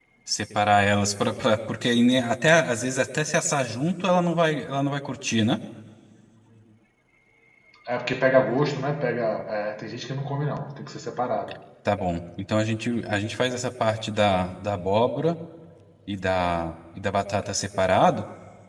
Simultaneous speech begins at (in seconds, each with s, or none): none